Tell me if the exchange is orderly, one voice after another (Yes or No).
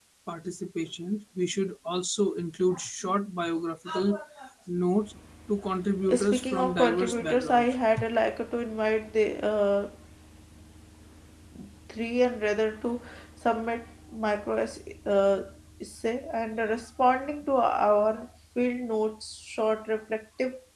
No